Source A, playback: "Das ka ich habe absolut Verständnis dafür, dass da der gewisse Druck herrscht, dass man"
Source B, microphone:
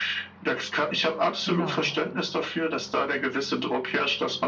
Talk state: both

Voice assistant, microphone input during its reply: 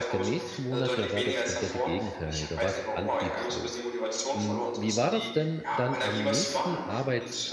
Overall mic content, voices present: both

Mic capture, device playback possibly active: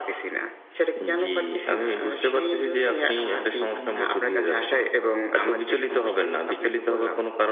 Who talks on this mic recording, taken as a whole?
both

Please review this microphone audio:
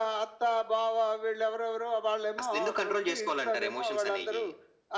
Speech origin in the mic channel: echo only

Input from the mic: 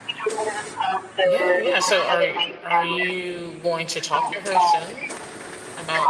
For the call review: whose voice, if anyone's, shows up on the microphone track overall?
both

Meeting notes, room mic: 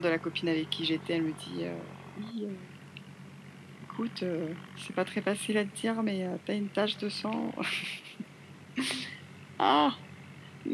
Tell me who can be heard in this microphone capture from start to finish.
echo only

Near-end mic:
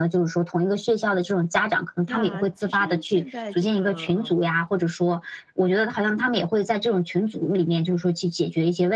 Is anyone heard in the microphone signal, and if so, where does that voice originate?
both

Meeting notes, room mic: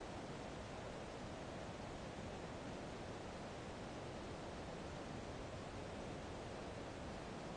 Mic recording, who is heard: neither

